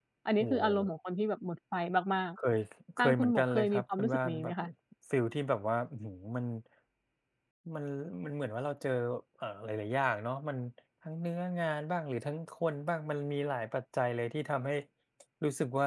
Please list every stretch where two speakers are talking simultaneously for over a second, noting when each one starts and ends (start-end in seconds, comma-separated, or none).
3.0-4.5